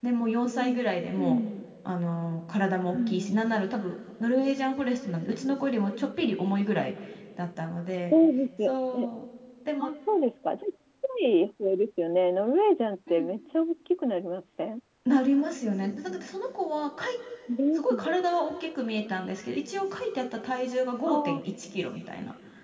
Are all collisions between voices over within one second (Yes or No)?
Yes